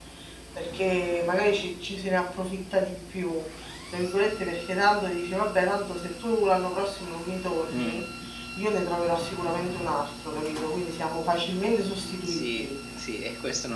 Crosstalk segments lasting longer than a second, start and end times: none

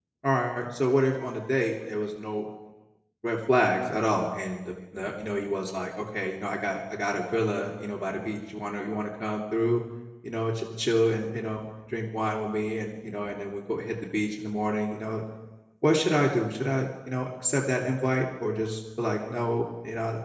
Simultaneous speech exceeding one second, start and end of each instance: none

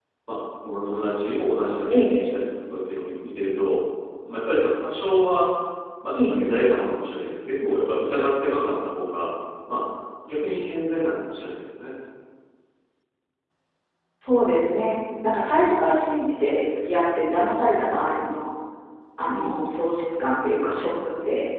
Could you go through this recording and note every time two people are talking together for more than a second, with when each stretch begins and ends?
none

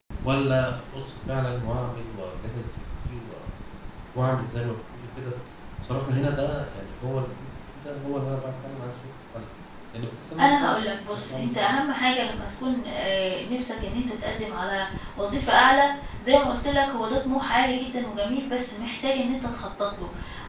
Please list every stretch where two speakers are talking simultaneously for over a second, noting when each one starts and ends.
10.4-11.8

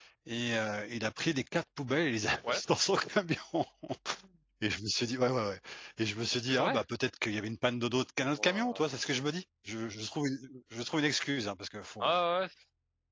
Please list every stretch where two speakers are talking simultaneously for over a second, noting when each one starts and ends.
none

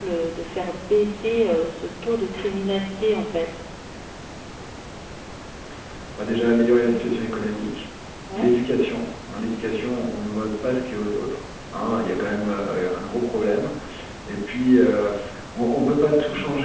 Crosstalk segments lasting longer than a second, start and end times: none

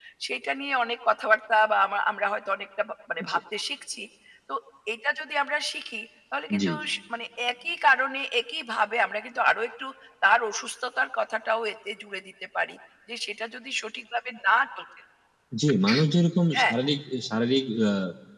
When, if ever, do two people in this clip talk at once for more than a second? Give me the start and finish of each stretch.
none

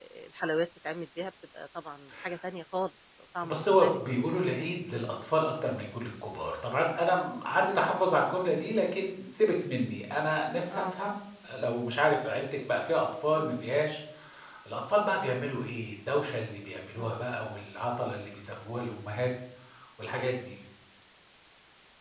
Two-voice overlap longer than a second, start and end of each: none

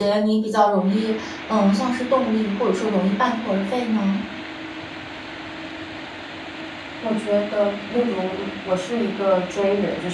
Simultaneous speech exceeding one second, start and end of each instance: none

